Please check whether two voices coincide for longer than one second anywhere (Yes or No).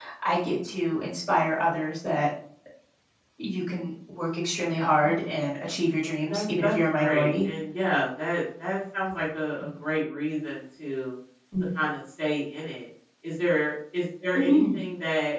Yes